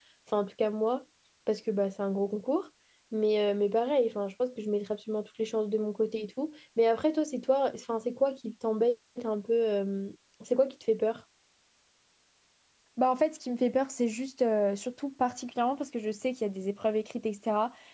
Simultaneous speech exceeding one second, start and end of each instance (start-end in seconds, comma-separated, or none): none